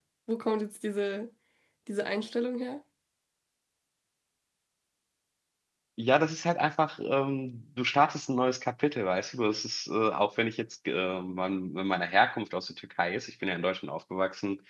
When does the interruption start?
none

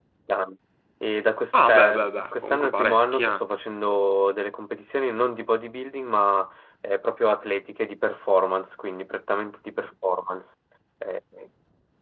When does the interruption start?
1.6 s

